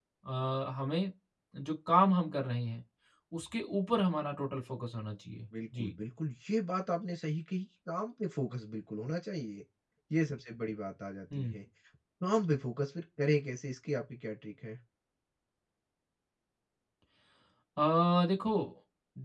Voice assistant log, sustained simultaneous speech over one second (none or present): none